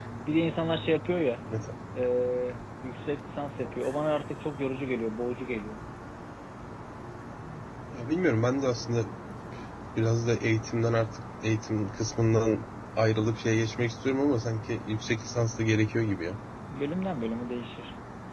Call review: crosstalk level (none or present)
none